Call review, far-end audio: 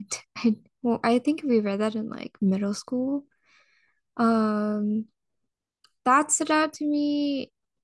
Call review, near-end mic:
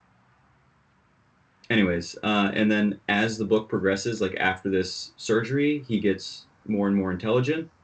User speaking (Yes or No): Yes